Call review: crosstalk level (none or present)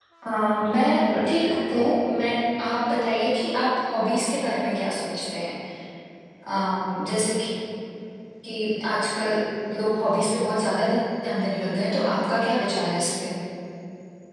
present